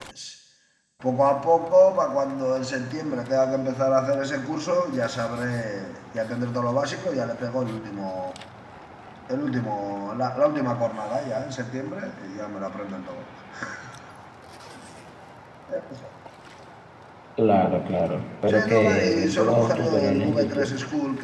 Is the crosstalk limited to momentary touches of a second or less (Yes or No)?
No